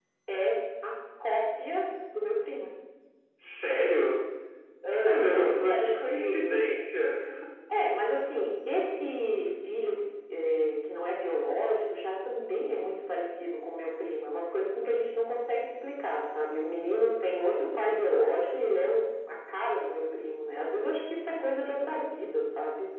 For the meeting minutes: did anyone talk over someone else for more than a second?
Yes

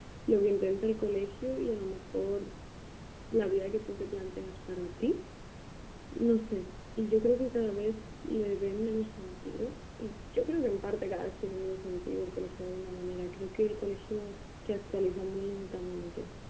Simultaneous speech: No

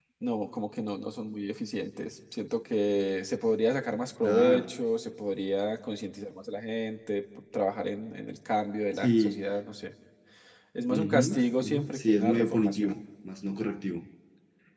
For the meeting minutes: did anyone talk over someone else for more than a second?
Yes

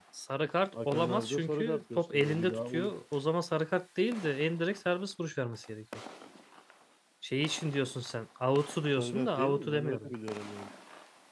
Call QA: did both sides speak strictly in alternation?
No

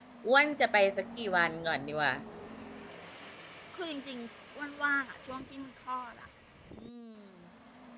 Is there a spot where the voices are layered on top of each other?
No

